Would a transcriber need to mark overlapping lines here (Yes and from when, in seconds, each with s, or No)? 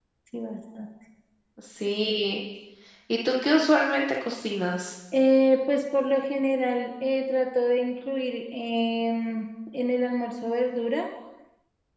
No